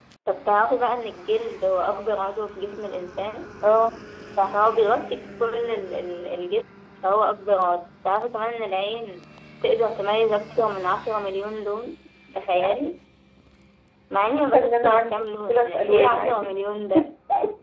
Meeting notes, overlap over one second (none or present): present